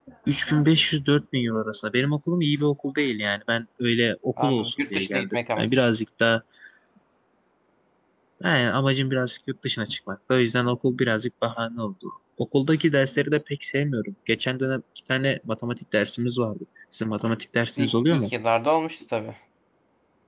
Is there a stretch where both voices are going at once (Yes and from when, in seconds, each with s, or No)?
Yes, from 4.4 s